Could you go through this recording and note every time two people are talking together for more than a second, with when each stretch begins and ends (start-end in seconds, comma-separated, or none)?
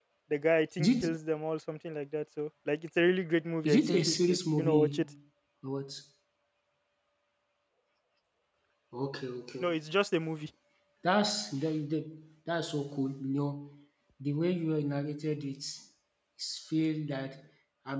3.6-5.0